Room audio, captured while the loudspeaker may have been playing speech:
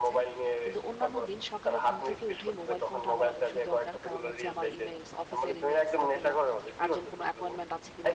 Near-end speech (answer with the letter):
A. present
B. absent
A